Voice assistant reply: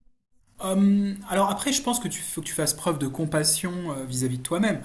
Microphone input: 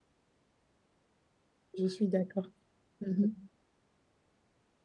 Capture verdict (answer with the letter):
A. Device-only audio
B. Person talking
B